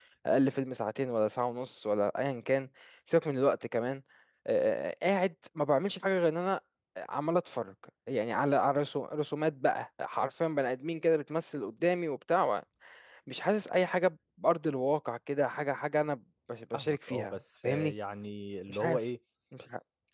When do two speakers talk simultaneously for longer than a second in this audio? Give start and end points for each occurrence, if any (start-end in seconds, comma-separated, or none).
16.7-17.9